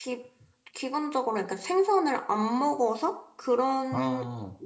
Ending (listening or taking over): listening